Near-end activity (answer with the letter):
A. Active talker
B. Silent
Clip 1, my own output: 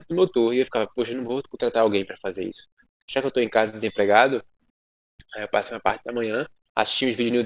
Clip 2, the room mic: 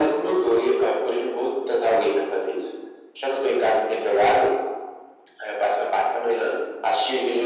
B